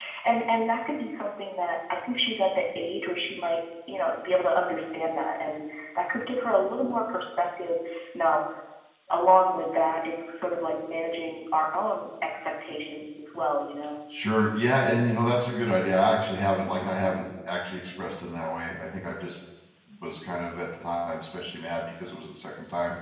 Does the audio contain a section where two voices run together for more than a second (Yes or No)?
No